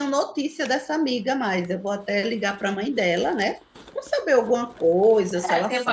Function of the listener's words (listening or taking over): taking over